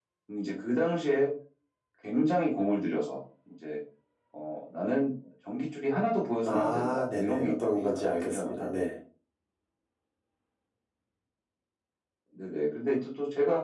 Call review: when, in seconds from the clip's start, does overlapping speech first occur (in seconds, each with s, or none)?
6.4 s